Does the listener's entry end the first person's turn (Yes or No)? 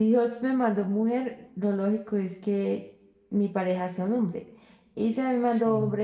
No